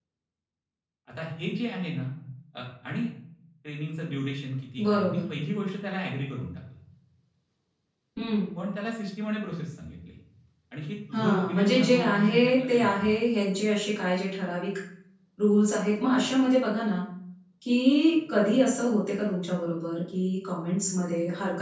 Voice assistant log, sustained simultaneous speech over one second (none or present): present